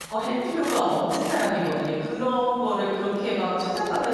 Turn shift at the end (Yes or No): No